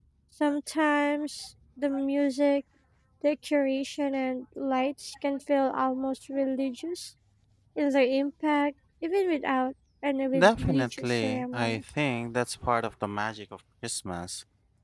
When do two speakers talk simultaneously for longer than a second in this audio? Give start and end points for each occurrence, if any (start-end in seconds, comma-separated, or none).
10.4-11.8